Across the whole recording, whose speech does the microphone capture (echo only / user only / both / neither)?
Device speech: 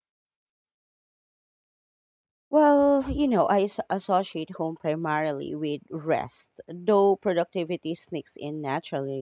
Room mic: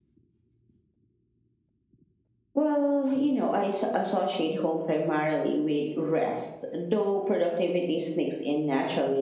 echo only